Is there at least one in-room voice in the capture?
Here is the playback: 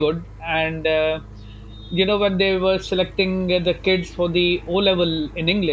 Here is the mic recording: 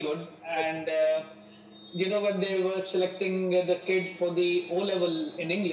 Yes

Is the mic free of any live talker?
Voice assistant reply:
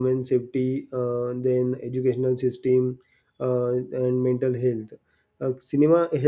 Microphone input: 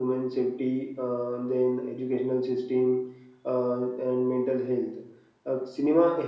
Yes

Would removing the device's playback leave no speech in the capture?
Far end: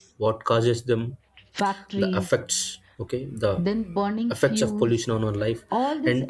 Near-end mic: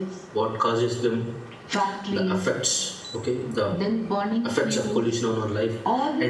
Yes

